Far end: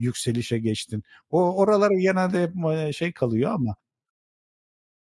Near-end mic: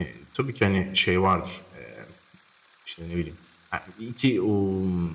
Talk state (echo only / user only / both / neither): user only